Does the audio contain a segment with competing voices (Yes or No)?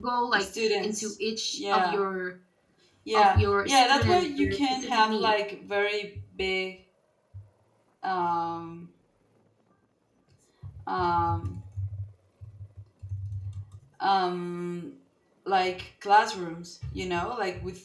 Yes